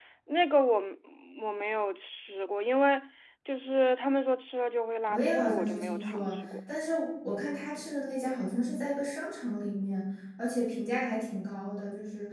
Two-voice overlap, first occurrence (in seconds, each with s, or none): 5.1 s